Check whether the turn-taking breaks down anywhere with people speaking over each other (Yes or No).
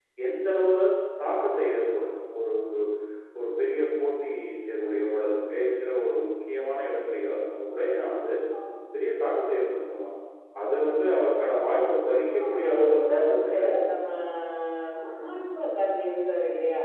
Yes